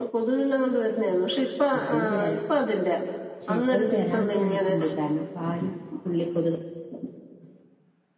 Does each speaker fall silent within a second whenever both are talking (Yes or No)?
No